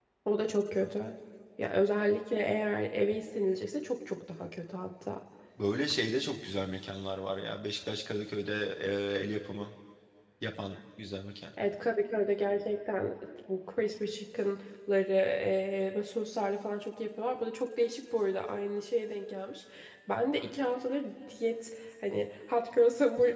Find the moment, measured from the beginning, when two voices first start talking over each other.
none

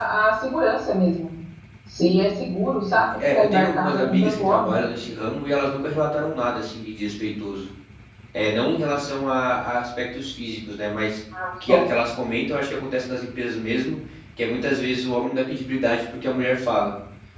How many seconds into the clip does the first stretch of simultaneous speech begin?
3 s

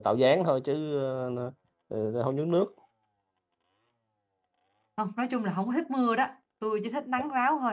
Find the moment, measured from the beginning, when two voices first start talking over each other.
none

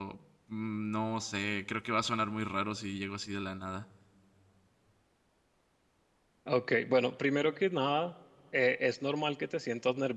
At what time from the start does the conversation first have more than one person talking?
none

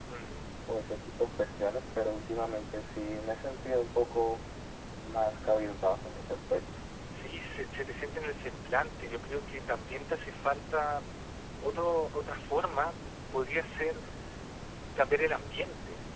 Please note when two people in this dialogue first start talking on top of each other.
none

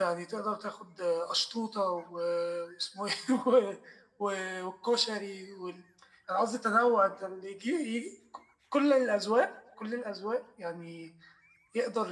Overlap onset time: none

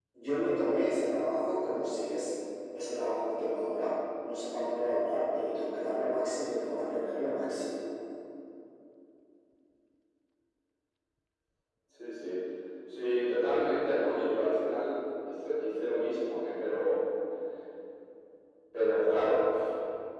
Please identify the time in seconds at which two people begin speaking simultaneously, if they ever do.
none

